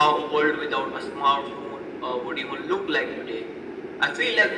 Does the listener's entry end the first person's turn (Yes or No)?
No